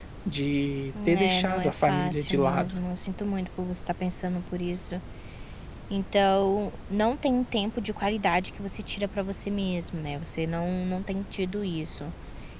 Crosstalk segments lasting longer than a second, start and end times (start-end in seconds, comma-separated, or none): 1.1-2.7